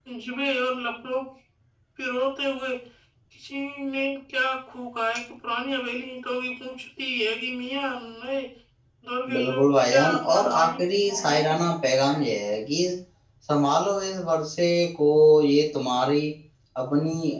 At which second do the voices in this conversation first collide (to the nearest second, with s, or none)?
9 s